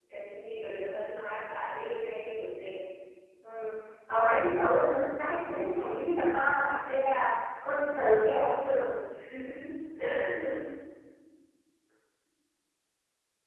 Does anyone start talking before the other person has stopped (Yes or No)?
No